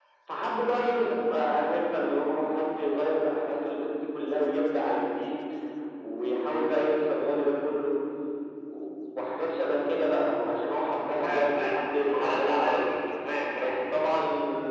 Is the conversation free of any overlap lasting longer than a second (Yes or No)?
No